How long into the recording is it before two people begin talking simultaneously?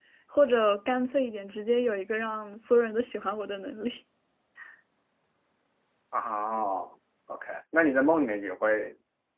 none

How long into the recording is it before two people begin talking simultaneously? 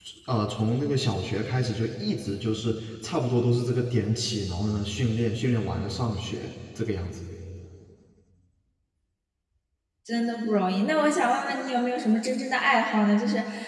none

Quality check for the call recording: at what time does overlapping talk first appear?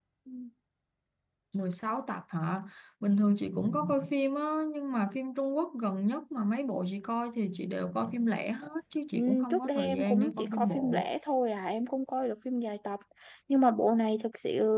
9.1 s

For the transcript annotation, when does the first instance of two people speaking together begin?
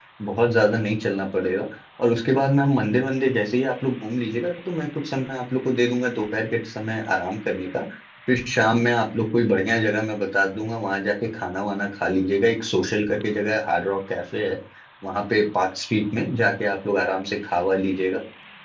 none

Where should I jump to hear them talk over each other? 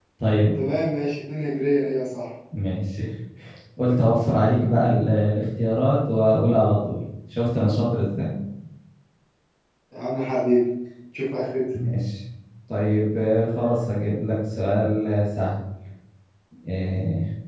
none

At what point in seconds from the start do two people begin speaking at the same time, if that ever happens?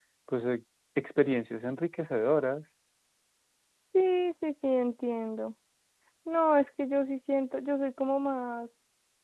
none

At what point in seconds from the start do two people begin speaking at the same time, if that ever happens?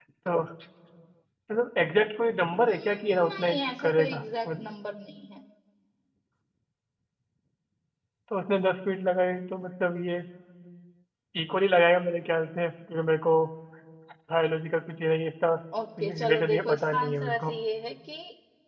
2.6 s

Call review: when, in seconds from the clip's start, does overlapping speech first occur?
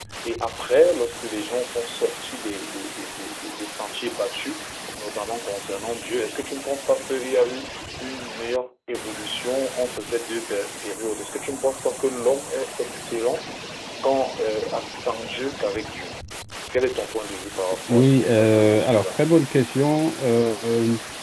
17.9 s

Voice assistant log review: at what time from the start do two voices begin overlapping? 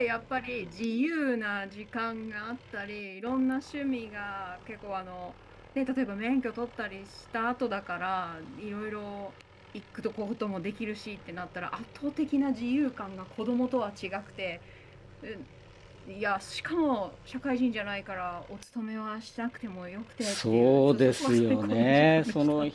20.2 s

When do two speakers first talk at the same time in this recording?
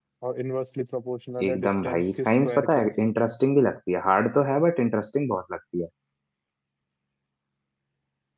1.4 s

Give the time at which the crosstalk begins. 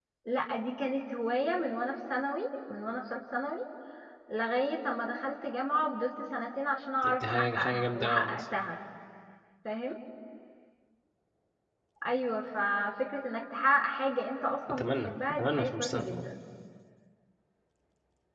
7.0 s

